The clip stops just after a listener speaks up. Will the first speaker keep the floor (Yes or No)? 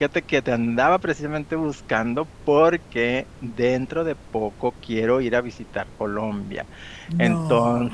Yes